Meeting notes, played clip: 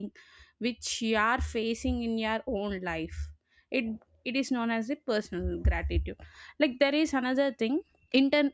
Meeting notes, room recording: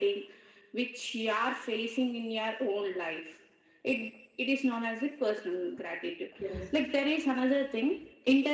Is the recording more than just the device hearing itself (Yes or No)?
Yes